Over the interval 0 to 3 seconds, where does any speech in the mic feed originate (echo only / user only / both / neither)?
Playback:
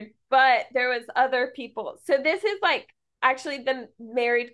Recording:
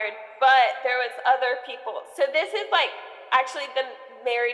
echo only